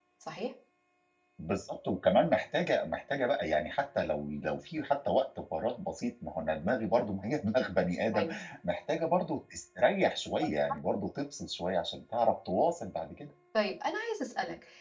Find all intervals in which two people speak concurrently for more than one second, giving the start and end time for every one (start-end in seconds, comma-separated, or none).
none